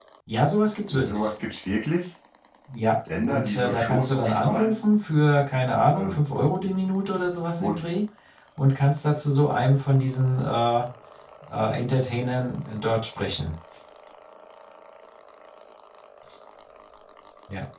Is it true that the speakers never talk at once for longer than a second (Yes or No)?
No